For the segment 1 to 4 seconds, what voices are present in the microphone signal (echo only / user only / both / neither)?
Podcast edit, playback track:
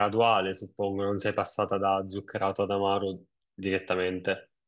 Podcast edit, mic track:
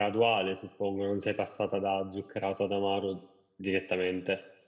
echo only